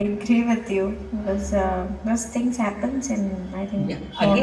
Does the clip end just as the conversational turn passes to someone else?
Yes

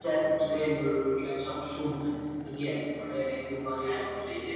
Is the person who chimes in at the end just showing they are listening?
No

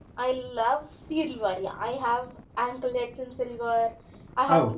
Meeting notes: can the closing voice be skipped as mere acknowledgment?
Yes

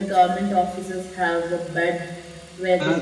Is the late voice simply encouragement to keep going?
No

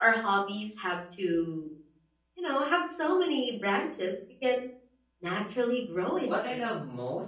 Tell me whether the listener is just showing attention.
No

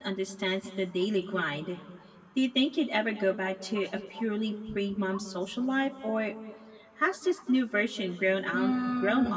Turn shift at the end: Yes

